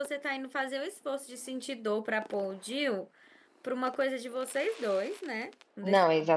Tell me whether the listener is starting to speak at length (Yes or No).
Yes